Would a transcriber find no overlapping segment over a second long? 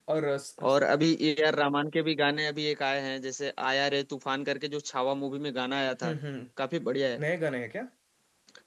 Yes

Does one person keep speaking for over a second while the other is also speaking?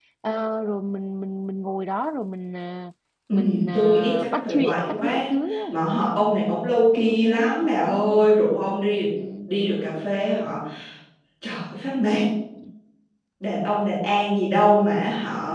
Yes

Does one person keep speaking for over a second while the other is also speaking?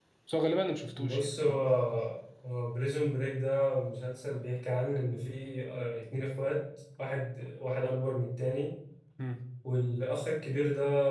No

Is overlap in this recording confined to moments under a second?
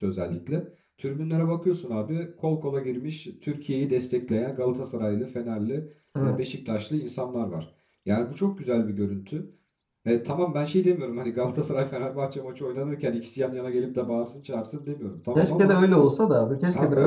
Yes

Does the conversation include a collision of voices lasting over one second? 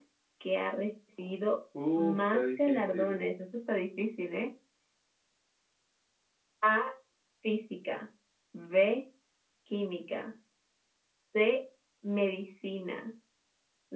Yes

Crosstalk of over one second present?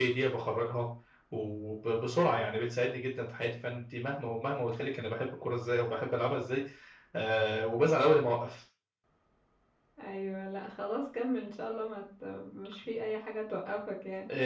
No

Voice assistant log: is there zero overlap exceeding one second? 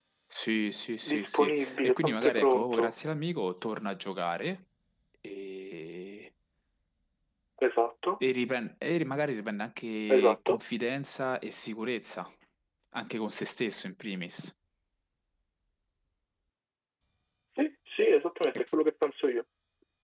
No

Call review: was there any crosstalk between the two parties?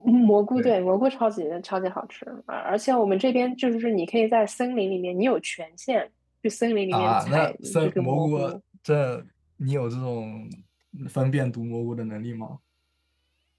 Yes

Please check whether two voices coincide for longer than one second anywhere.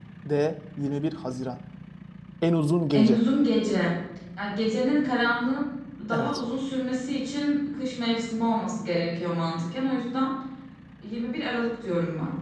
No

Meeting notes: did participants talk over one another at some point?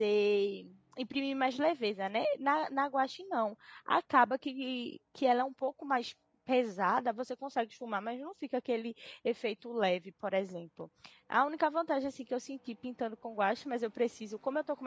No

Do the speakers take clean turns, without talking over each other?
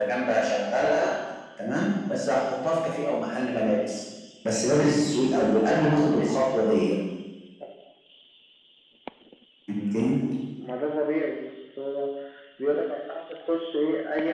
Yes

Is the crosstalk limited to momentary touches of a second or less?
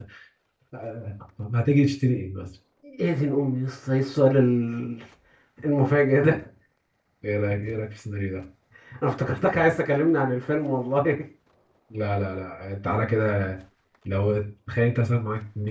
Yes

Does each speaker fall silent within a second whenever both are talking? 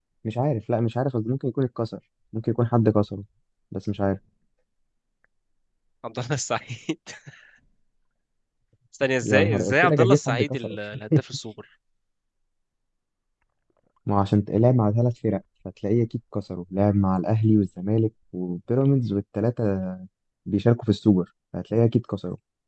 No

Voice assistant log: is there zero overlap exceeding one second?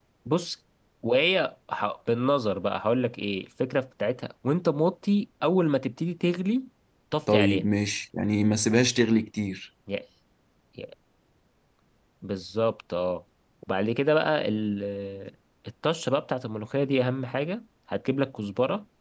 Yes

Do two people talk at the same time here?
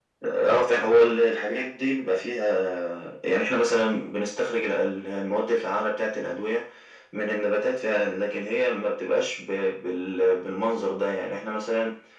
No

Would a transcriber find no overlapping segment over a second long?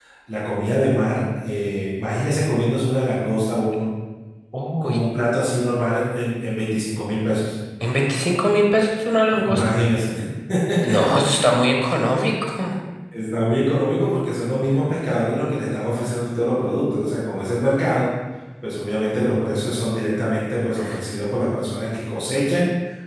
Yes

